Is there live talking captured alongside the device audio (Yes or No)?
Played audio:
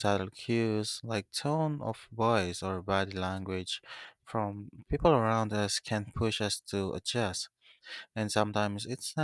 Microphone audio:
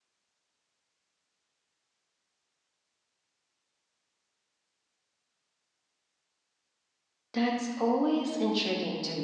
Yes